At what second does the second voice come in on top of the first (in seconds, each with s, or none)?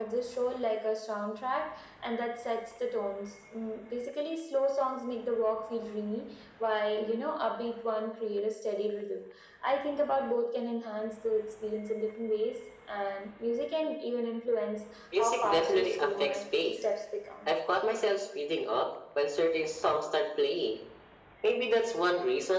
15.1 s